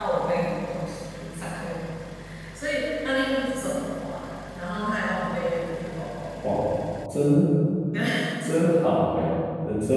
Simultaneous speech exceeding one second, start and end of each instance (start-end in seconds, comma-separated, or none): none